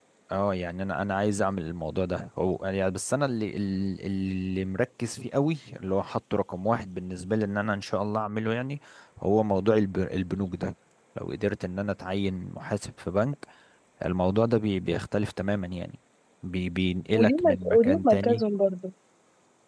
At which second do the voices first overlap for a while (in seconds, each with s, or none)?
17.2 s